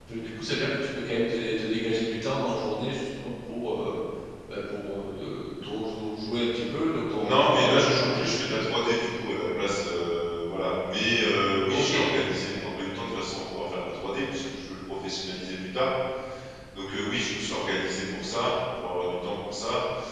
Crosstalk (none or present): present